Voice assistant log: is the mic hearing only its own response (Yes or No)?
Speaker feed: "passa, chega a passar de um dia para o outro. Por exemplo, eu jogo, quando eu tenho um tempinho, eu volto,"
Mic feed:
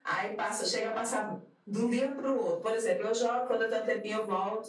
Yes